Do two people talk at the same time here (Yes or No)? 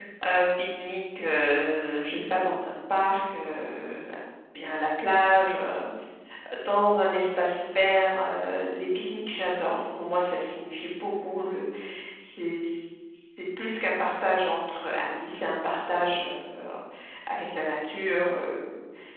No